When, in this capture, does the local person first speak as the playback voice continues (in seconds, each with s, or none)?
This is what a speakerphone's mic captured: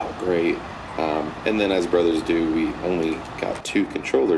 none